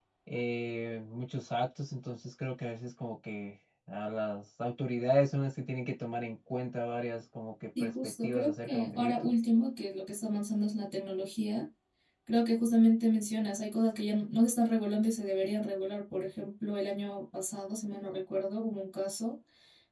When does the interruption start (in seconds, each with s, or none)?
7.8 s